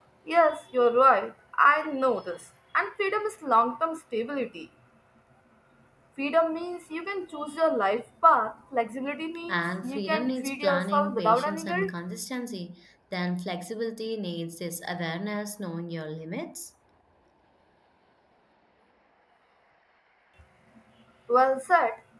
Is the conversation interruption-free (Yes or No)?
No